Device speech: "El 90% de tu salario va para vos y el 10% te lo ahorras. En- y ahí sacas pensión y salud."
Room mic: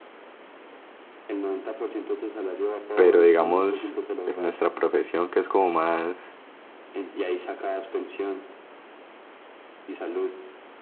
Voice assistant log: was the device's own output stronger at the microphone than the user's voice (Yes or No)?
No